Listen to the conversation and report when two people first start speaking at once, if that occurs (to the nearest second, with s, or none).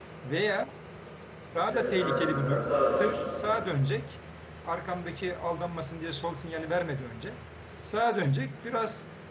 2 s